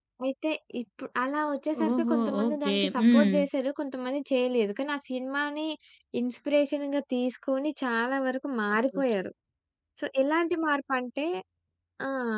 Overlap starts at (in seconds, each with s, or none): 1.8 s